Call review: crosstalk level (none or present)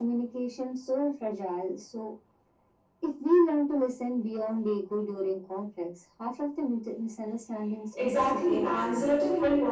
present